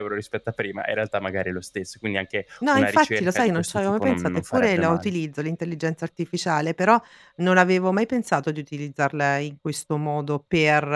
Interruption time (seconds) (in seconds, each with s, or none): 2.6 s